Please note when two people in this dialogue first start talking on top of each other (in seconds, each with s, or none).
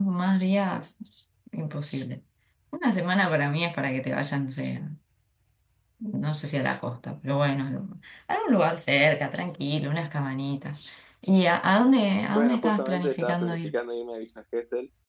12.3 s